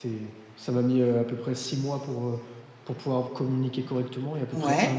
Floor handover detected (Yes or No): No